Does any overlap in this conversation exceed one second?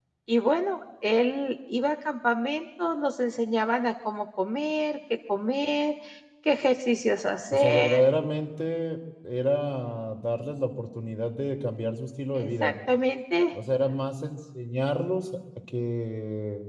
No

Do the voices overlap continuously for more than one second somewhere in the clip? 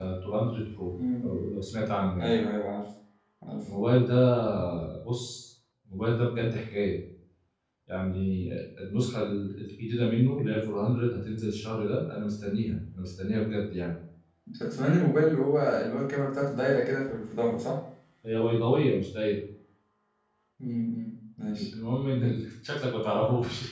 No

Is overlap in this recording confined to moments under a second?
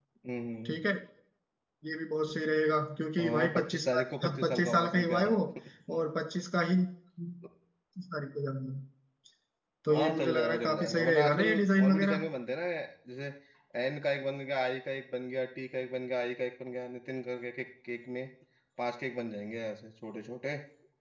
No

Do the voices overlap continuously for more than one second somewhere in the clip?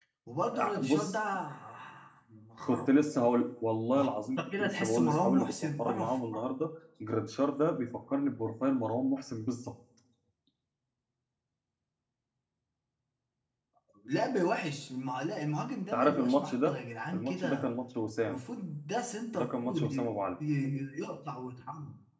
Yes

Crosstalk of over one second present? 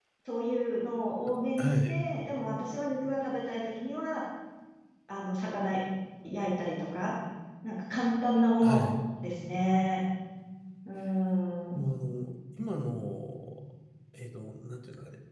No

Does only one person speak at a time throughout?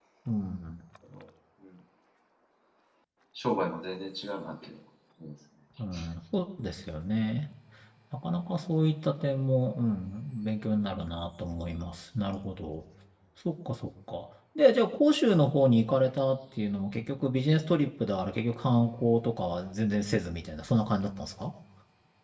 Yes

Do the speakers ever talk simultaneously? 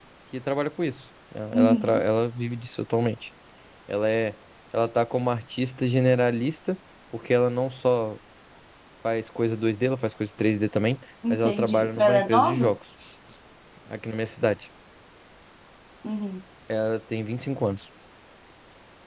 Yes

